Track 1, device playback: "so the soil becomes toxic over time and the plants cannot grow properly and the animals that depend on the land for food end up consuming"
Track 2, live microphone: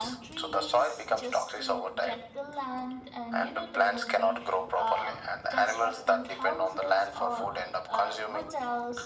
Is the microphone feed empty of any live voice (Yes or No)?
No